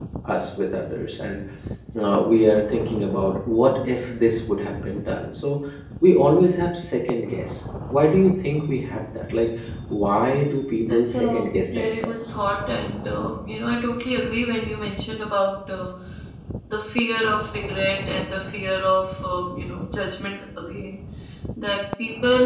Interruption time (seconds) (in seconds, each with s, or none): 10.9 s